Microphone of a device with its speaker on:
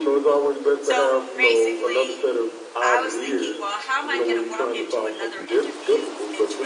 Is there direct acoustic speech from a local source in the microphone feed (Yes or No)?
Yes